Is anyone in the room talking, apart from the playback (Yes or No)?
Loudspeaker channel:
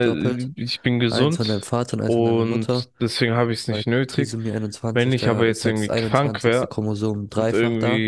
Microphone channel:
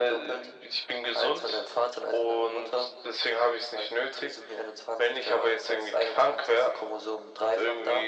No